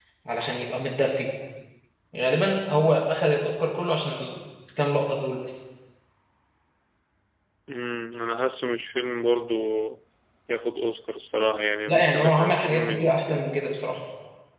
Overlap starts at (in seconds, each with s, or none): 11.9 s